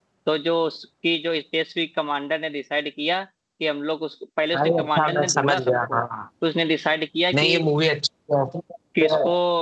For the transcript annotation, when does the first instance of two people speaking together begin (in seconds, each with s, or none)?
4.5 s